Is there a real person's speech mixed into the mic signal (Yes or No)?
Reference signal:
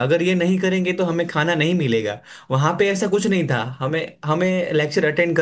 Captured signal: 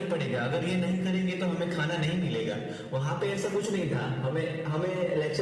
No